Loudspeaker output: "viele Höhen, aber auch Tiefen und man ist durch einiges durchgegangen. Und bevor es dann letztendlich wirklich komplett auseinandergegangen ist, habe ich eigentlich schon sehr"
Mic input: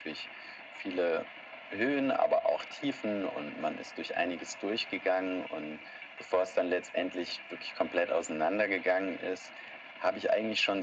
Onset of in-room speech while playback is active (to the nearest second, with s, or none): none